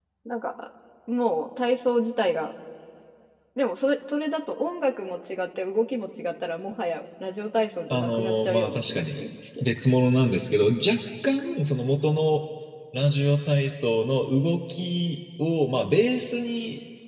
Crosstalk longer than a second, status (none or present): present